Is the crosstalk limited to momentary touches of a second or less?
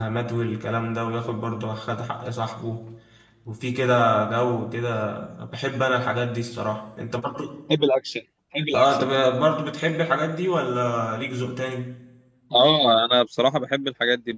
Yes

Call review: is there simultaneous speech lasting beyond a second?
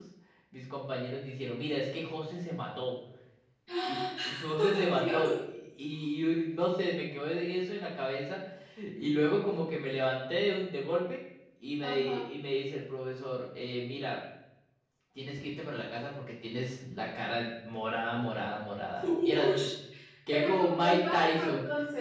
Yes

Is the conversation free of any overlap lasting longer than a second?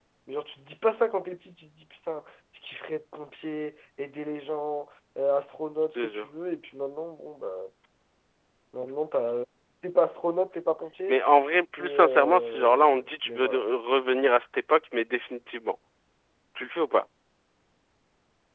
No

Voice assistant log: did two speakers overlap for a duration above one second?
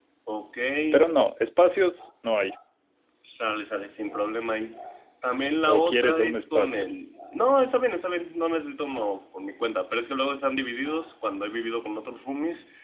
Yes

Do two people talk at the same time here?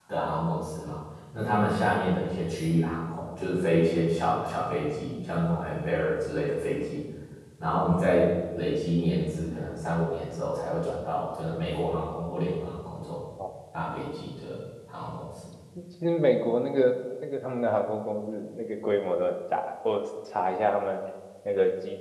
No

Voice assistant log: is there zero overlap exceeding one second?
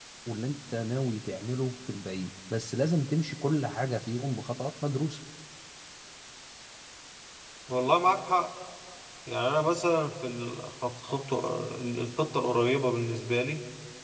Yes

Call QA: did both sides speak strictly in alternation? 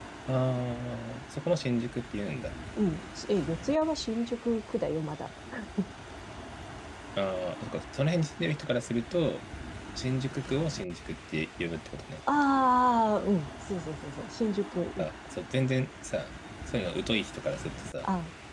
Yes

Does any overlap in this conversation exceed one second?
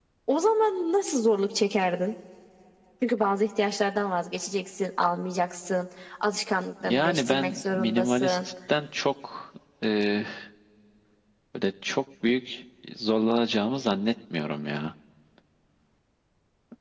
Yes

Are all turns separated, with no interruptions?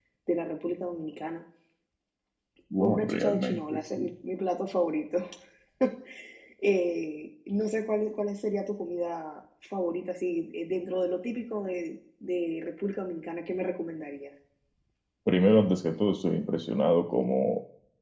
No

